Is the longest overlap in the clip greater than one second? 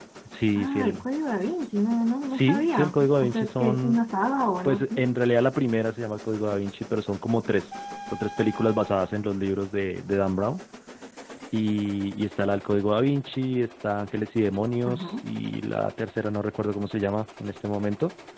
Yes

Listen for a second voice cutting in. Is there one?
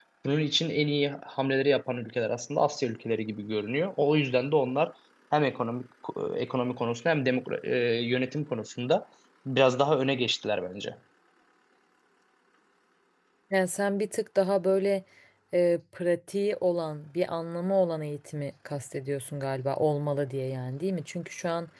No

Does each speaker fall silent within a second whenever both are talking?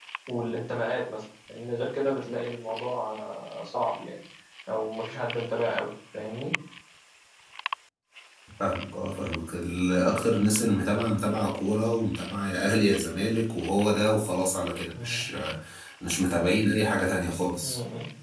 Yes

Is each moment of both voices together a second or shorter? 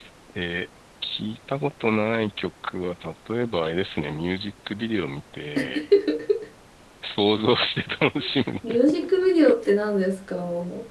Yes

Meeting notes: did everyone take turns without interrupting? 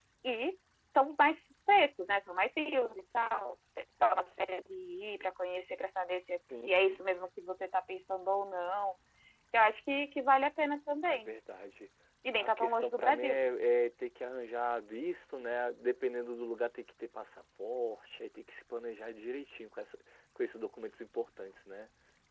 No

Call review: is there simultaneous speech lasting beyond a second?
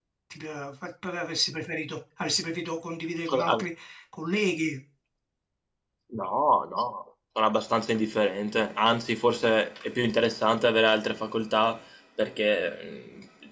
No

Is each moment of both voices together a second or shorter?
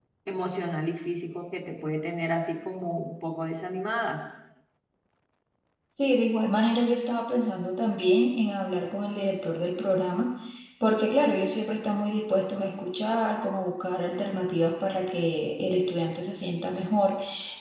Yes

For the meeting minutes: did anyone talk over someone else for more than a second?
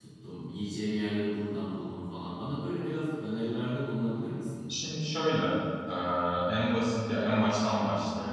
No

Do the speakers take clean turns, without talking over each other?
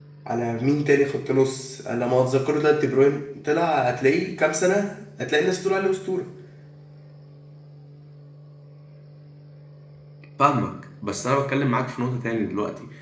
Yes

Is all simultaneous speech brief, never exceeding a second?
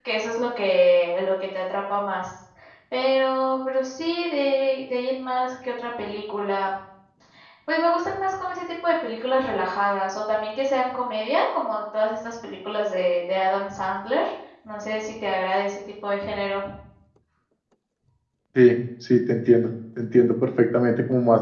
Yes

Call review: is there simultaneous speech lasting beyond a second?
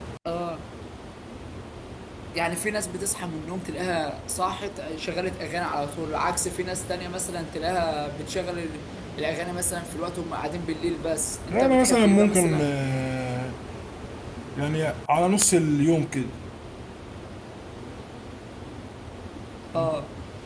Yes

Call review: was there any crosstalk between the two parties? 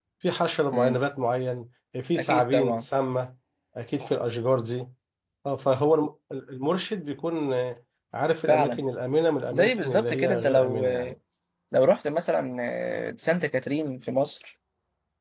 Yes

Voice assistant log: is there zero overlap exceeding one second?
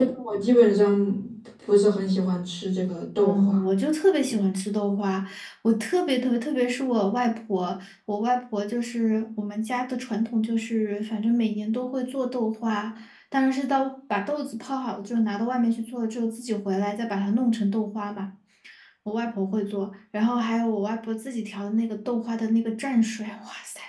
Yes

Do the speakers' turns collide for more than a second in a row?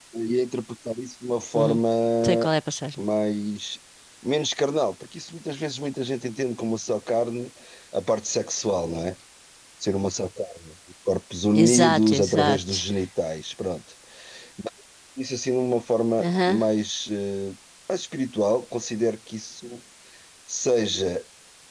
Yes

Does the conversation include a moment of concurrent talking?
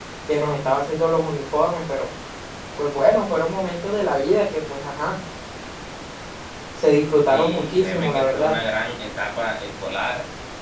Yes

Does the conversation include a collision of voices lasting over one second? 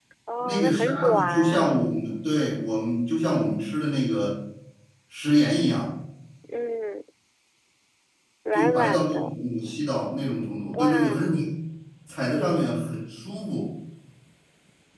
Yes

